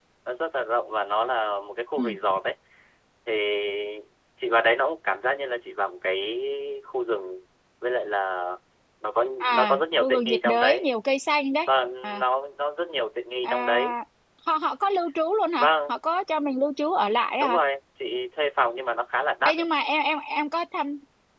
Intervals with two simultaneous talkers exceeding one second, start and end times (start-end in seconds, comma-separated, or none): 9.4-10.9